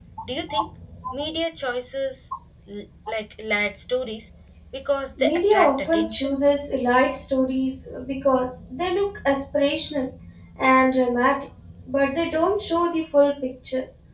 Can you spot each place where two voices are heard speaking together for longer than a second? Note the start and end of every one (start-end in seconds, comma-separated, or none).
5.2-6.4